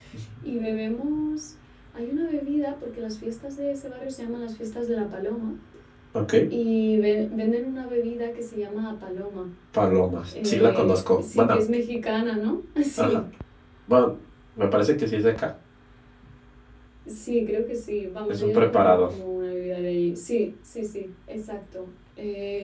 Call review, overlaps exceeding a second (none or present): present